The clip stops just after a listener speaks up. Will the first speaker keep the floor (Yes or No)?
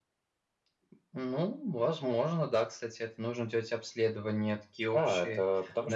No